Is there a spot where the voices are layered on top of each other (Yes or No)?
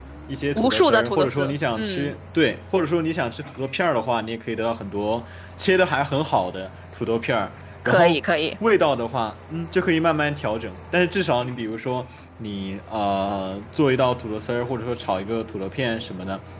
Yes